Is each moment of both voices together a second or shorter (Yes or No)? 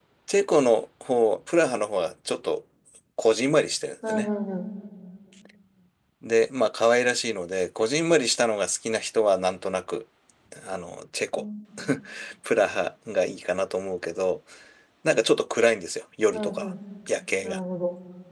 Yes